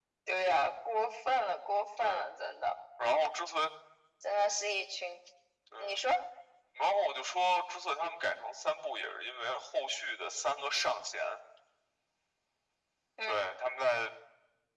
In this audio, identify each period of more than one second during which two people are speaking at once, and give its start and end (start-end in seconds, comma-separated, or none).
none